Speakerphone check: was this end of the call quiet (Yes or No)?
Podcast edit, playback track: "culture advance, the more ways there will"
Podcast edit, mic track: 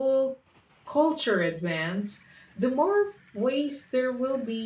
Yes